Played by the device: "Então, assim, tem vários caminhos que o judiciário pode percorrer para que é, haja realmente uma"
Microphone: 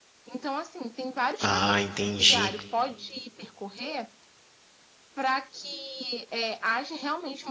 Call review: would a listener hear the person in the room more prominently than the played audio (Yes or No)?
Yes